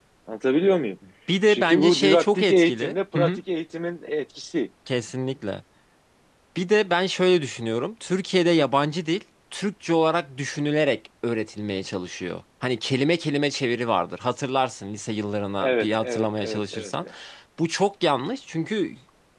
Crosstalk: present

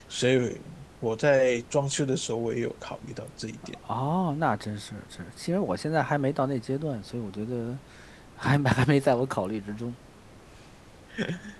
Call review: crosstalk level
none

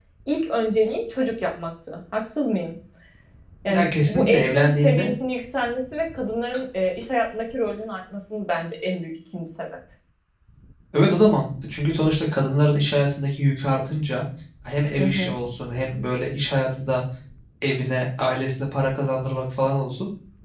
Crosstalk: present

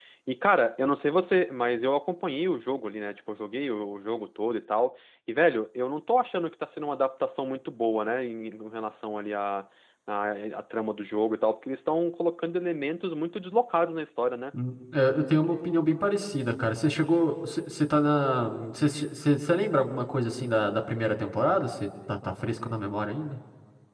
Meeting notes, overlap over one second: none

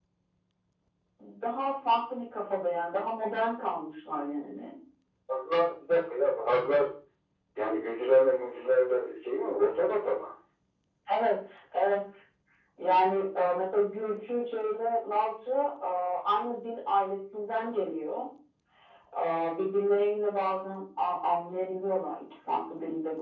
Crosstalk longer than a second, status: none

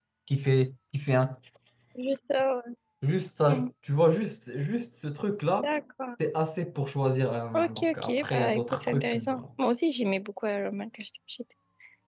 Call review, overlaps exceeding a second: present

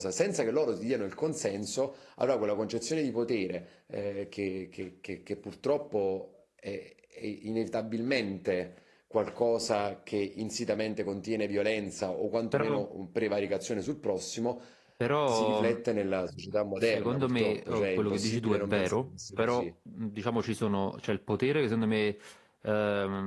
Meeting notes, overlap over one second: present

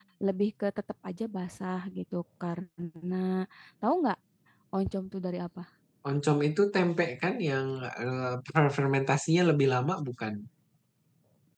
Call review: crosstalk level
none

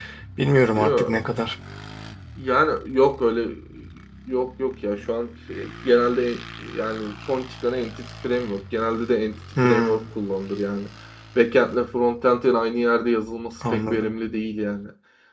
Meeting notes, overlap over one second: none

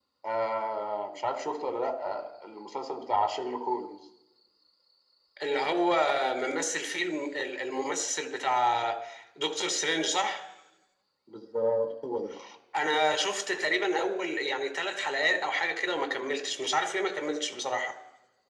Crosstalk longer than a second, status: none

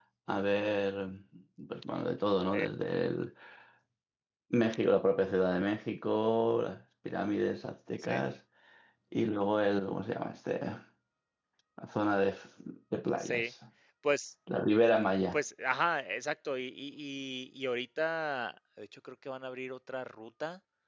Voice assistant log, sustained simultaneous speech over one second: none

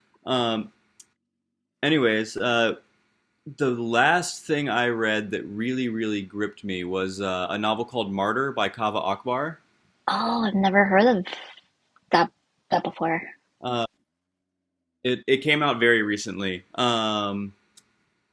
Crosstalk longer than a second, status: none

